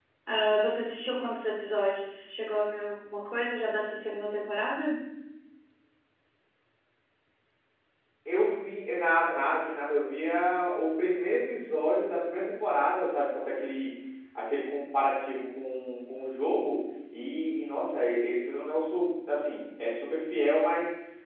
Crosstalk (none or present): none